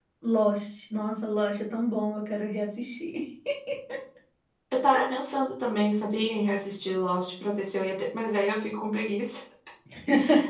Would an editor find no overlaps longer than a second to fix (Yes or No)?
Yes